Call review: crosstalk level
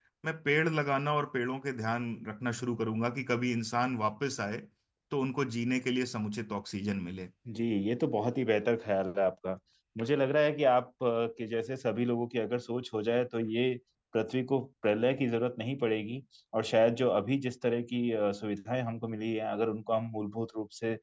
none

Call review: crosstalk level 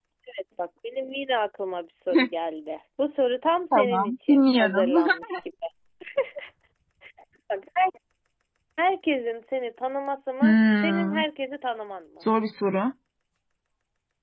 present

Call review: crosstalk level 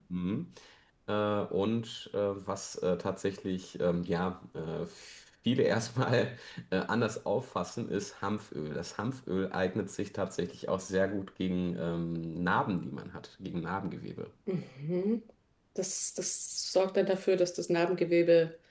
none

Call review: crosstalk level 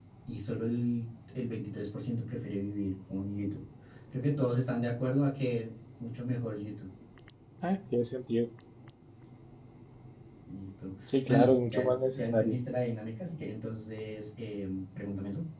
present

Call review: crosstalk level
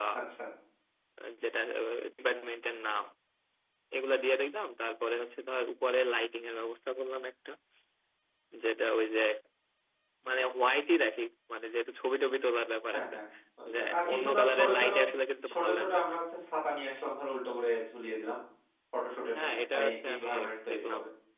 present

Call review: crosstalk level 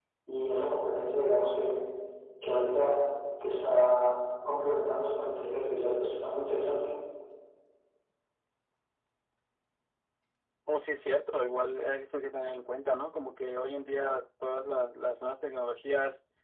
none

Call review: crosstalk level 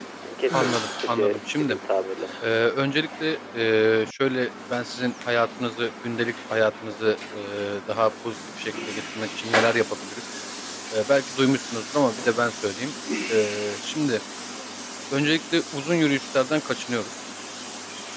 present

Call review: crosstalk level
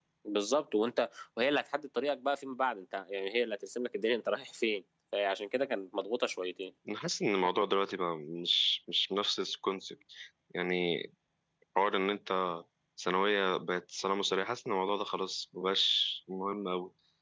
none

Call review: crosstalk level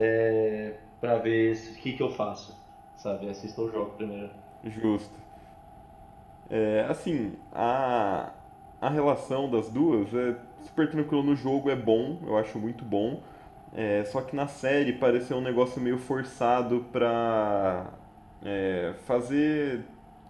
none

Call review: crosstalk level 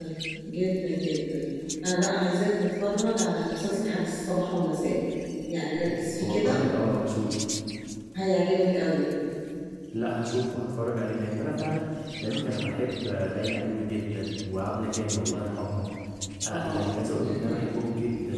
present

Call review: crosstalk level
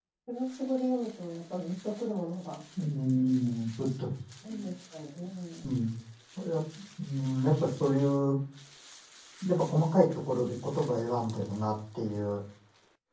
none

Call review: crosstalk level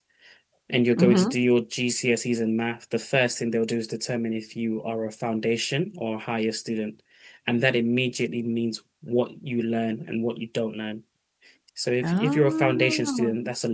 present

